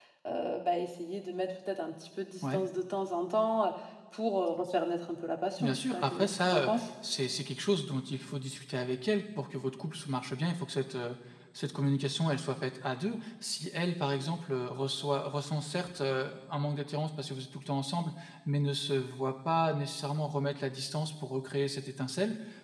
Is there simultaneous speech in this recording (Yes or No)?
Yes